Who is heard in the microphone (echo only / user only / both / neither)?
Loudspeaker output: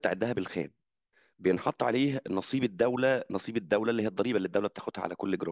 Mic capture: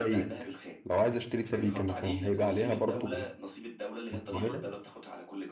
both